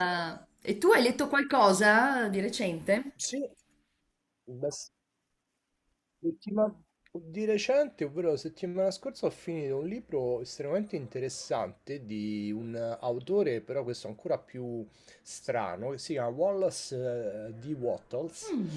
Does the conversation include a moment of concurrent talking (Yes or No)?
No